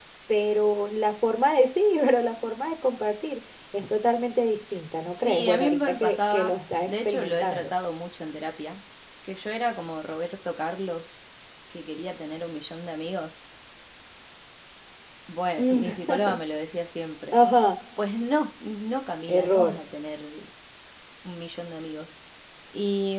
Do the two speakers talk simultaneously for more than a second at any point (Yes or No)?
Yes